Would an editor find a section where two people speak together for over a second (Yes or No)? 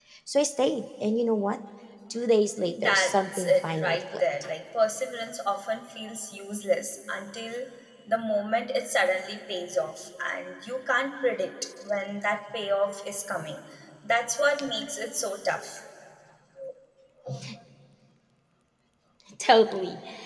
Yes